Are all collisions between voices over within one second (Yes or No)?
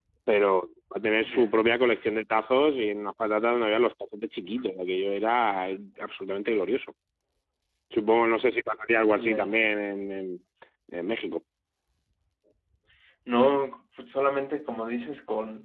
Yes